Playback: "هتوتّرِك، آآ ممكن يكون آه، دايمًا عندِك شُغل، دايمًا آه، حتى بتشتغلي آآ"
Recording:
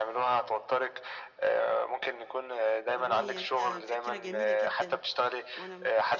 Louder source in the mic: echo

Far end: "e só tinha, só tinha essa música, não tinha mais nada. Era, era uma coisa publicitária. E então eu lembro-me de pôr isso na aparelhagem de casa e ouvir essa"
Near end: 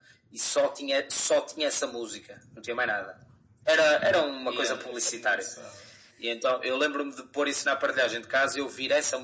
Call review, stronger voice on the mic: echo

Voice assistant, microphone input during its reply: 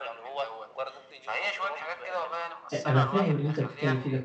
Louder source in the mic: user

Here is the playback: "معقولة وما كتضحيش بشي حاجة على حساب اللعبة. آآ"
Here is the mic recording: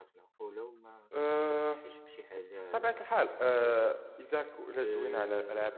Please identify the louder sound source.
user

